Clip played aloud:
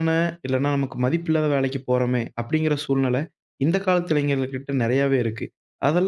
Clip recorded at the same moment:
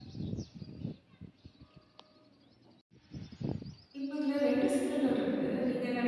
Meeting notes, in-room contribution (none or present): present